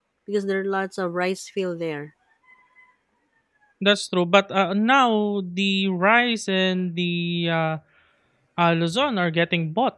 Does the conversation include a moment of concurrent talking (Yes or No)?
No